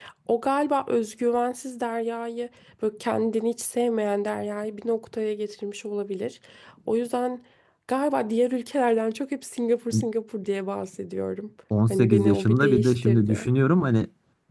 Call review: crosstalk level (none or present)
present